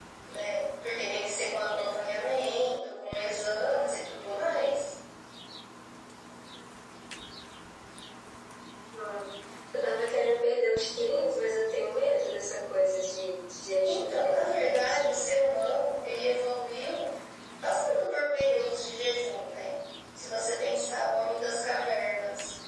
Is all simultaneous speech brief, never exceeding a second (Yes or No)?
No